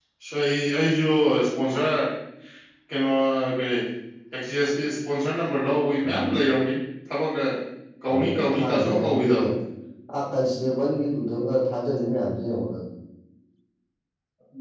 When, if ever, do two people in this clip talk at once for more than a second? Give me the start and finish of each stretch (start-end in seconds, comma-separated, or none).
8.1-9.3